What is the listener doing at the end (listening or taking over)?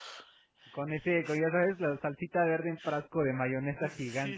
taking over